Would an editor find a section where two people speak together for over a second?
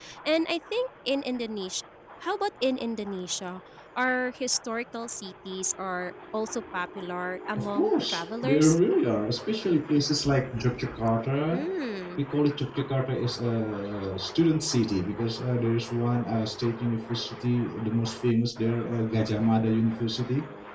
Yes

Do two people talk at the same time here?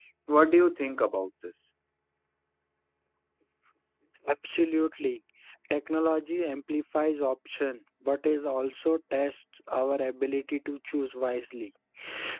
No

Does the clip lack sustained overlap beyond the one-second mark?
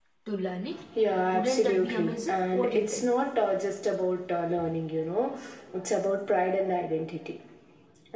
No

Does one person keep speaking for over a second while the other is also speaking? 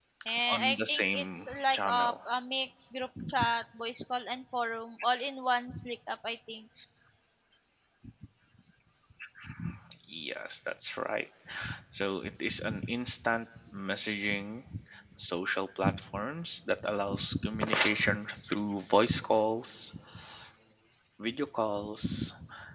Yes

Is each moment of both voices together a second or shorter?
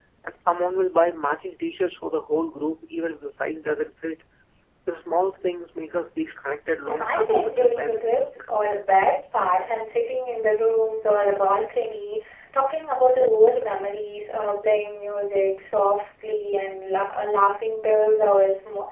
No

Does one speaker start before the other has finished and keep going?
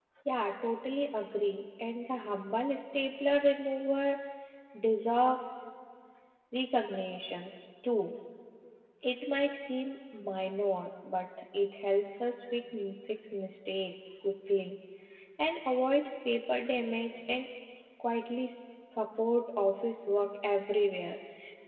No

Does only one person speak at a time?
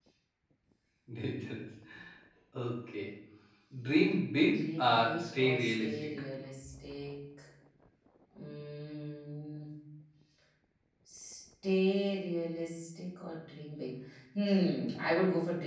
No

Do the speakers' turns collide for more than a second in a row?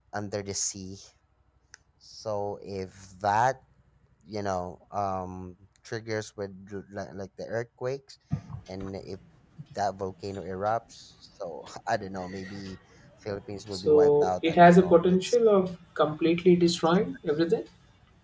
Yes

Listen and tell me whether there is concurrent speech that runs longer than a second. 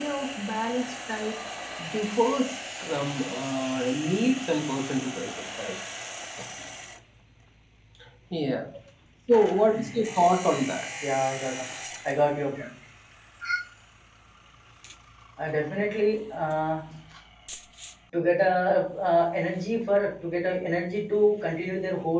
No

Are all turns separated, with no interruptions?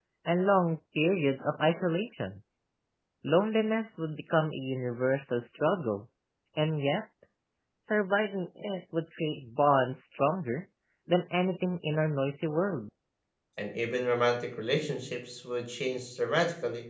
Yes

